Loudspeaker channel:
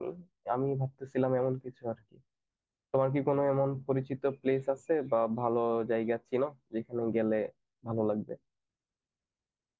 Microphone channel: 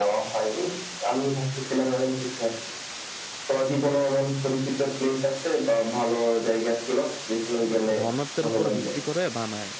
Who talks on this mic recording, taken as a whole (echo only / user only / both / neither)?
both